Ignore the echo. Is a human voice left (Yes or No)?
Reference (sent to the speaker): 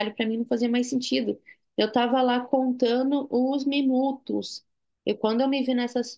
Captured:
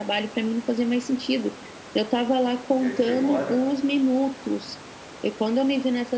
Yes